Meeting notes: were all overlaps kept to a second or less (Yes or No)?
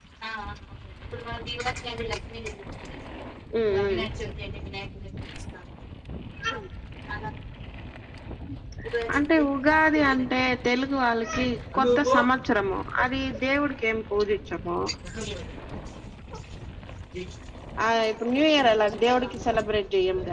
No